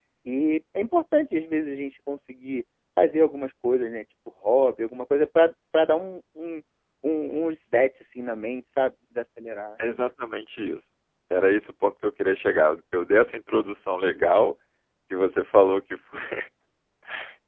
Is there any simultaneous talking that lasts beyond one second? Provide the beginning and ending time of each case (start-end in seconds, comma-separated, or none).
none